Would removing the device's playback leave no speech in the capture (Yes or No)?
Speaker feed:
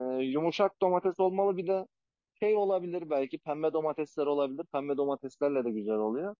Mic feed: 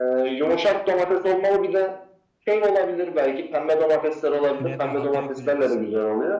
No